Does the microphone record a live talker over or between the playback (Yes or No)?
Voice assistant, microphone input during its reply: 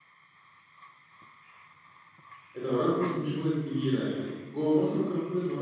Yes